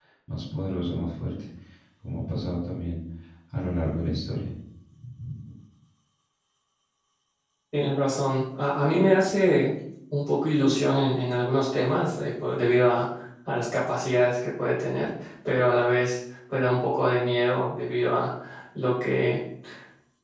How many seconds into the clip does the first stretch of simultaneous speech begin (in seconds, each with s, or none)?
none